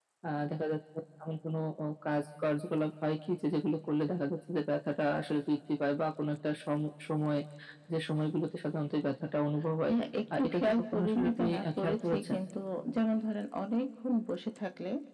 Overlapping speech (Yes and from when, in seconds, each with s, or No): Yes, from 10.4 s